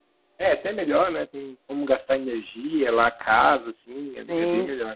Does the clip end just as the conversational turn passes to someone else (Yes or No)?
Yes